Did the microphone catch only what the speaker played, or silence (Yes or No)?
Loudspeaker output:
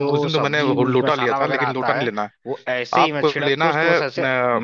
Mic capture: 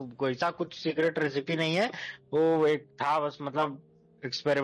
No